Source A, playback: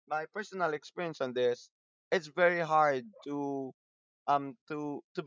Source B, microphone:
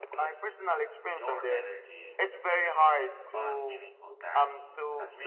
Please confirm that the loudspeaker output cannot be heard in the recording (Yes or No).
No